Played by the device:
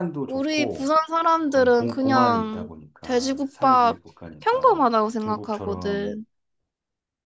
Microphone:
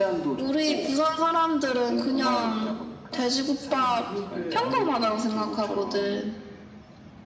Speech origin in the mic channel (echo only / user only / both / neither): both